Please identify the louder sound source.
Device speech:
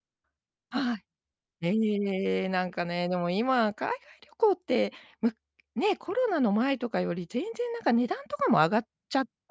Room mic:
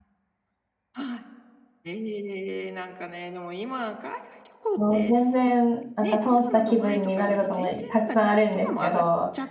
user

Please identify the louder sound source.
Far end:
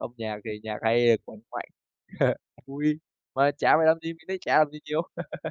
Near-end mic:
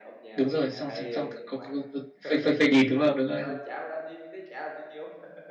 user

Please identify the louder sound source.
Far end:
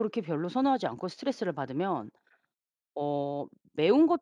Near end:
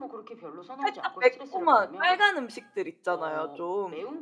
user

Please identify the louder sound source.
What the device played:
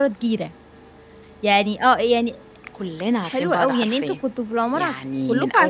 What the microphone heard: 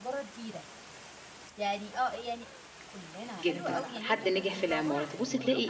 user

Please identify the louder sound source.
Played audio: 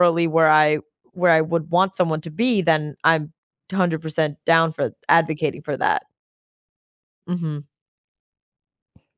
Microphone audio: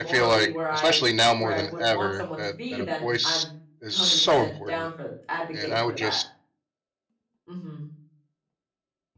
user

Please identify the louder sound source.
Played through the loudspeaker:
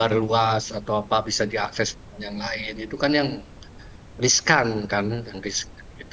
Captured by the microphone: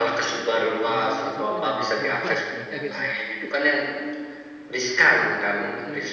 echo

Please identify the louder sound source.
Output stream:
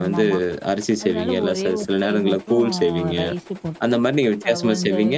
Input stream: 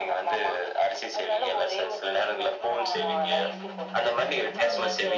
echo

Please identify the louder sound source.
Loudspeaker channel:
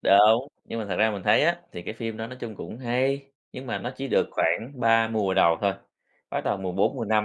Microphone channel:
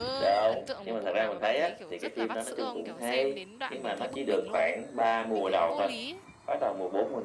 echo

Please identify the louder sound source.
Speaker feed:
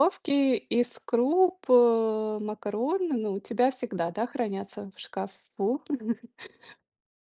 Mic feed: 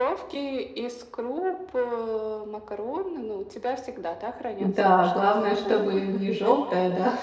user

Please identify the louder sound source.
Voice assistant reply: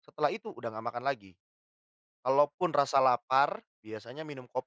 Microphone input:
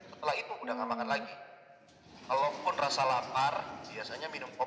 echo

